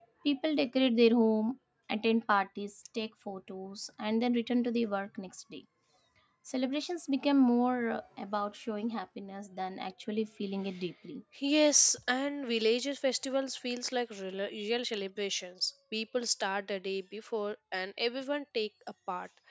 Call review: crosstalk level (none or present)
none